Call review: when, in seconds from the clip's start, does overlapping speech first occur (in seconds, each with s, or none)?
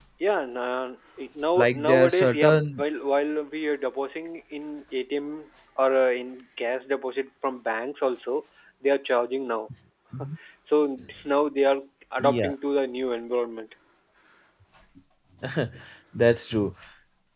1.6 s